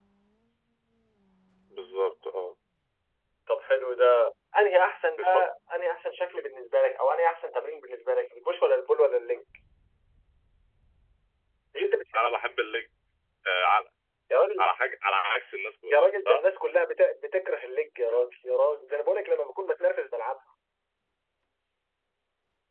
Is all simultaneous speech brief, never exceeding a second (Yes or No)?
Yes